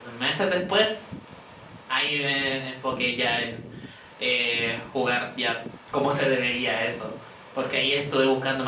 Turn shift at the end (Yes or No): No